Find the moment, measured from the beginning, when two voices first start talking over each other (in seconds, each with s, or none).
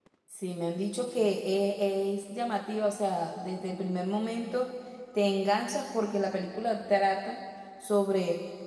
none